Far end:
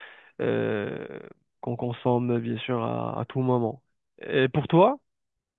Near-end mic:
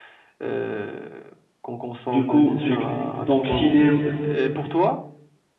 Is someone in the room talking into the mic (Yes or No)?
Yes